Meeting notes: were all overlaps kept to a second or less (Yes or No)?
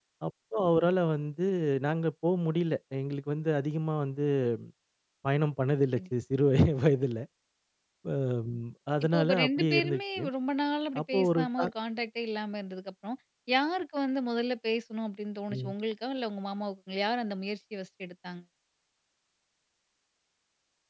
No